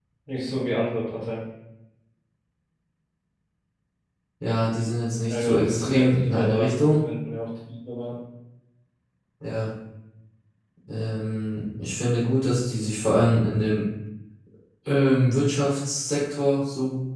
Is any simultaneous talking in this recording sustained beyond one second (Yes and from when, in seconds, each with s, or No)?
Yes, from 5.3 s